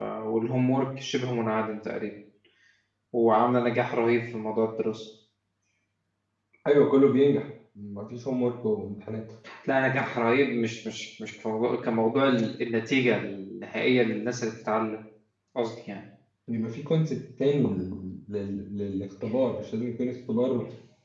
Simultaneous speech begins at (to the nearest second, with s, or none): none